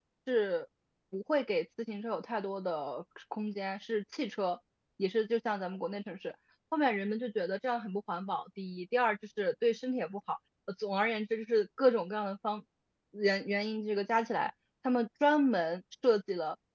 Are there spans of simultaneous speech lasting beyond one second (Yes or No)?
No